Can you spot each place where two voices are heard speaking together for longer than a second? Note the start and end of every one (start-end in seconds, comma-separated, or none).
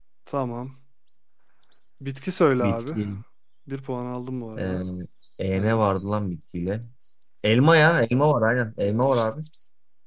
none